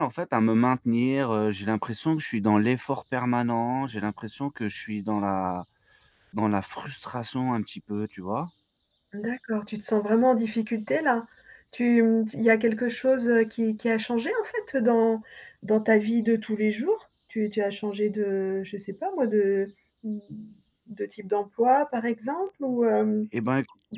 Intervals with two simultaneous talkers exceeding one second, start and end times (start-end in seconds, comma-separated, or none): none